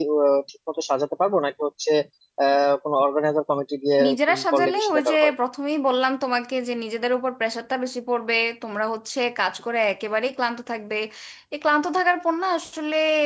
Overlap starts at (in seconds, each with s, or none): 4.0 s